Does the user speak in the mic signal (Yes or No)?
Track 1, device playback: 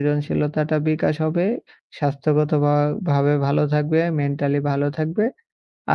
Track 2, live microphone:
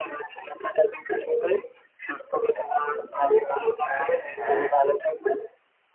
Yes